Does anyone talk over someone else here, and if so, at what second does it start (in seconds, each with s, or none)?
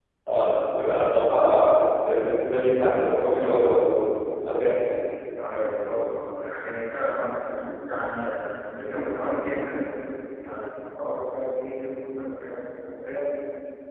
none